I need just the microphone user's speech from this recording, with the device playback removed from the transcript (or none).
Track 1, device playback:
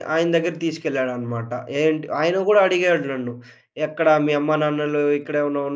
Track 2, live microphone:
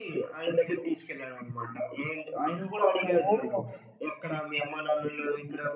ఓహ్!